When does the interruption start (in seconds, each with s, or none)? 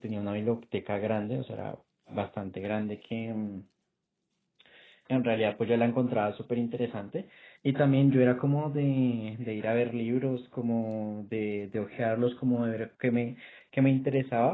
none